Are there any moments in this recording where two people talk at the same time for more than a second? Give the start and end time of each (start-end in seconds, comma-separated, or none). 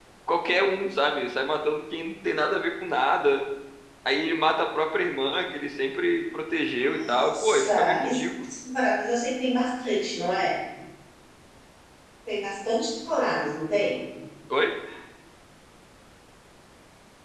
6.7-8.5